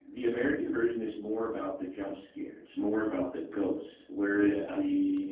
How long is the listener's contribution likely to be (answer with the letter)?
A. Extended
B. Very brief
B